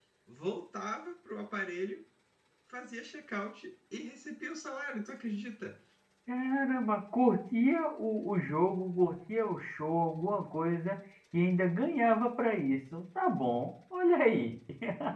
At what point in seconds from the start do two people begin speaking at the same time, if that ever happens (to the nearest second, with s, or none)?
none